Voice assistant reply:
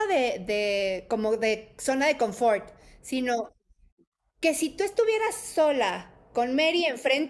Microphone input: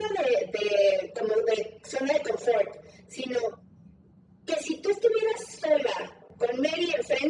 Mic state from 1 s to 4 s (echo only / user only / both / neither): echo only